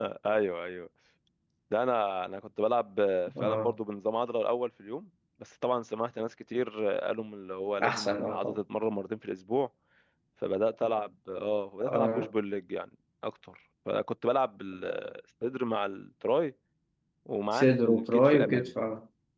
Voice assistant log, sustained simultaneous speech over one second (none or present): present